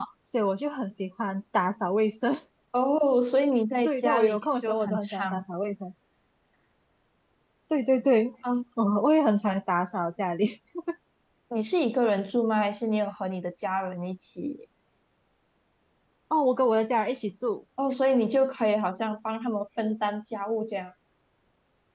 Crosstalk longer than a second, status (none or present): present